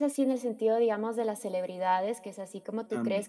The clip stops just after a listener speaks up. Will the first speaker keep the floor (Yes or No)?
Yes